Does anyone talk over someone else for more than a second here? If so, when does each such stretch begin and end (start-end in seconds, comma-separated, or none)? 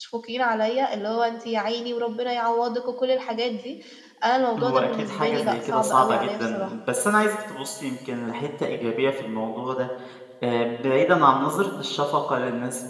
4.6-6.7